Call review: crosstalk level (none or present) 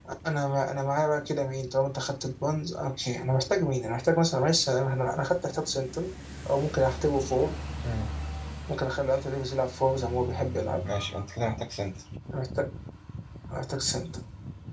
none